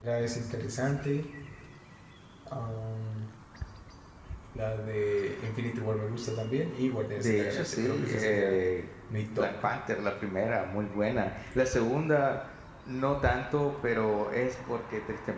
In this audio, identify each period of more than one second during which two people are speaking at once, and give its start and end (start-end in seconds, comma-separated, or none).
7.2-8.6